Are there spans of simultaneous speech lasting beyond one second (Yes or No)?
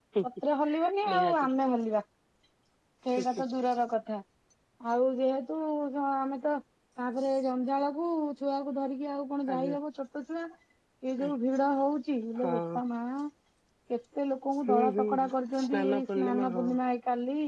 Yes